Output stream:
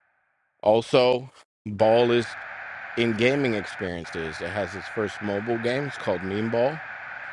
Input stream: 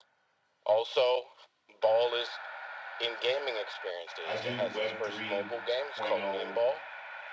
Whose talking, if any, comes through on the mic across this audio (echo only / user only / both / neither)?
both